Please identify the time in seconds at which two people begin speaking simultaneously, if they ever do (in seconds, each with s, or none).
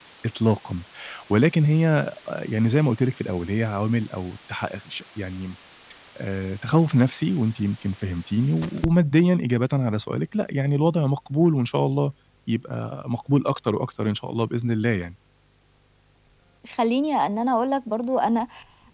none